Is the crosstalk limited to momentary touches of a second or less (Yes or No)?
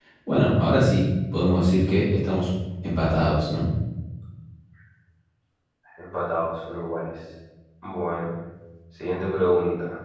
Yes